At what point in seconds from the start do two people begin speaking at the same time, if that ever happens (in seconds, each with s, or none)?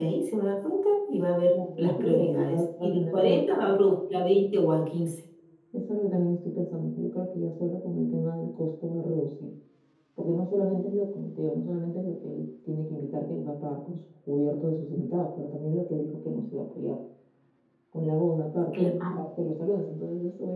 1.5 s